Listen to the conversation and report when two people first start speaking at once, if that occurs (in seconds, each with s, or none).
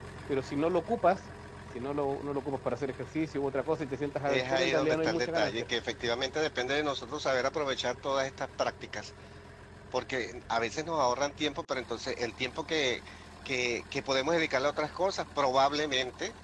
4.3 s